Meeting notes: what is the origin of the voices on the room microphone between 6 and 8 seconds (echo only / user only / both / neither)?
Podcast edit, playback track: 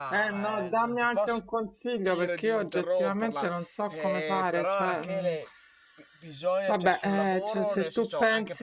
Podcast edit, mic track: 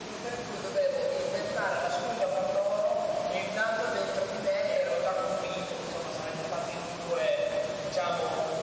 user only